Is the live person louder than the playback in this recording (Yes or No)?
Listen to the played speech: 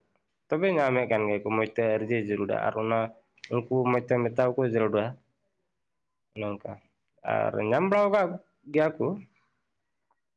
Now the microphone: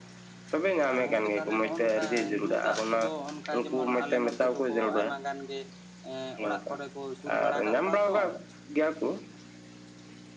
No